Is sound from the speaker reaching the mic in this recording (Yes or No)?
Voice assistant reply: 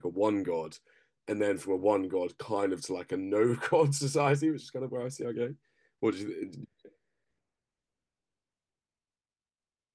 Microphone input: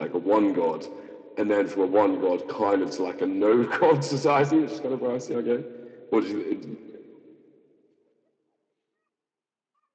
Yes